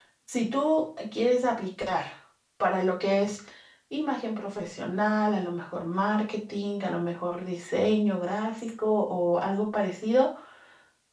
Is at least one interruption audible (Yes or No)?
No